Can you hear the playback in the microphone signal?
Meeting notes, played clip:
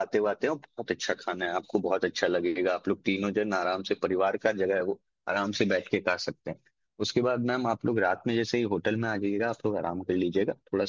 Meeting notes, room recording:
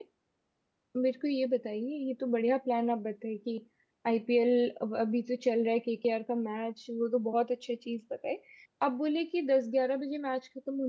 No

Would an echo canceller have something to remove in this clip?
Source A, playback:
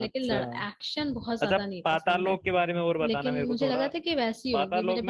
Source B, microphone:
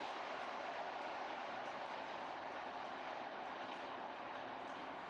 No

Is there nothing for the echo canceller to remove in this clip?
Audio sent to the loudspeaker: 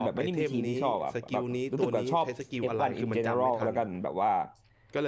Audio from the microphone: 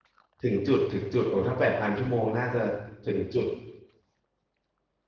Yes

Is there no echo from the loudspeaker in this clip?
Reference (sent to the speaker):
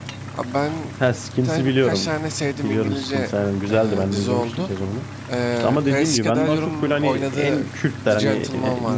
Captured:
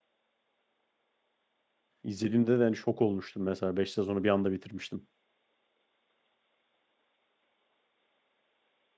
Yes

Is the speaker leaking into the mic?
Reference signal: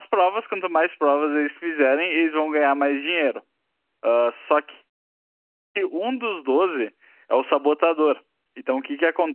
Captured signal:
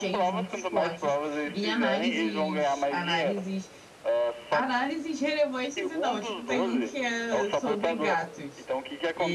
Yes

